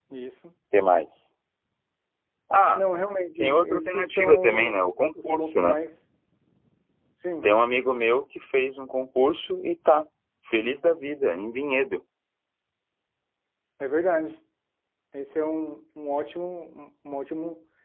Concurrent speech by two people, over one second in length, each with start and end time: 3.4-5.8

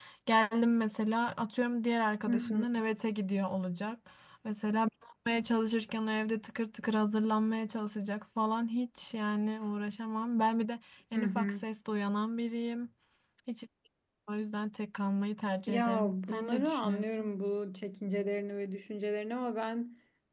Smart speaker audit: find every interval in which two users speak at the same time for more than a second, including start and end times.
15.7-17.3

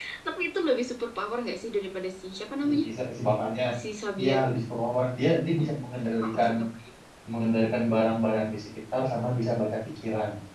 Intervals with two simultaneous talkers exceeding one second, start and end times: none

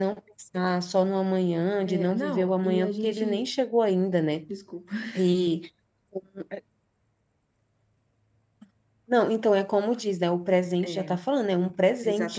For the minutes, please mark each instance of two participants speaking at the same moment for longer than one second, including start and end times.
1.9-3.5

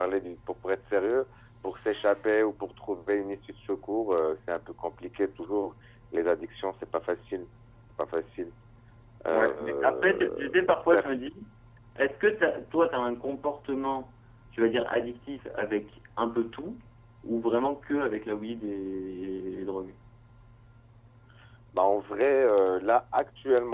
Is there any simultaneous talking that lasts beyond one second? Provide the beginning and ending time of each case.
9.3-11.1

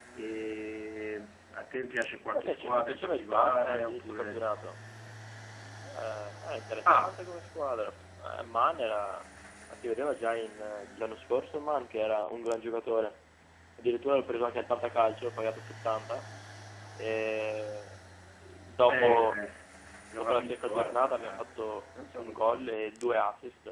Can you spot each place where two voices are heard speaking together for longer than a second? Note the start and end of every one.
2.3-4.7, 20.2-21.4

